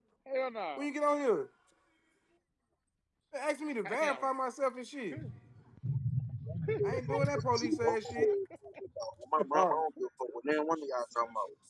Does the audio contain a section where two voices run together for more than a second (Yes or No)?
Yes